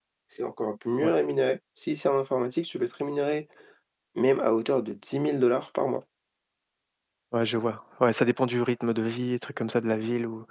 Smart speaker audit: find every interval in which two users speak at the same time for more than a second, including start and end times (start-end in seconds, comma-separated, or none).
none